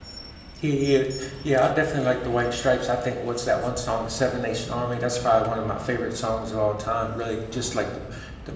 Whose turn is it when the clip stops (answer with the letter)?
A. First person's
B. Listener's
A